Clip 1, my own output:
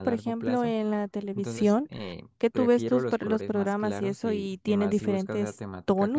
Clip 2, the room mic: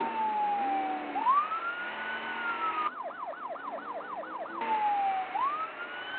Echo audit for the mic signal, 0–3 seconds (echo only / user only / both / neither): neither